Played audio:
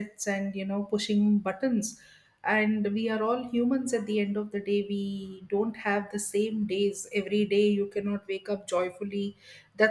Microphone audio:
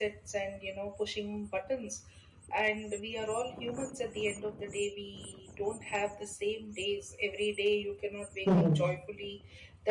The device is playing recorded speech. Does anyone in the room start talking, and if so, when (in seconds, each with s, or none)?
8.4 s